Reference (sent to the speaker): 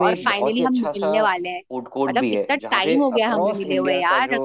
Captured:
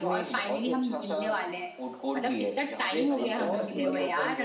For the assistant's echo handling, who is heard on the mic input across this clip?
both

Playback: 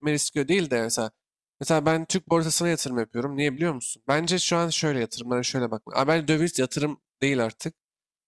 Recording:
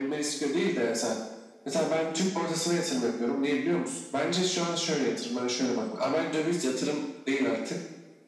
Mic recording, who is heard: echo only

